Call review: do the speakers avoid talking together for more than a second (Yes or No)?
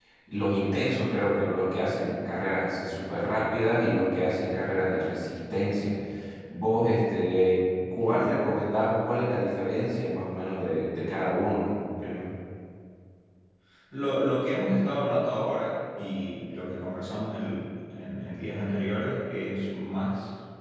Yes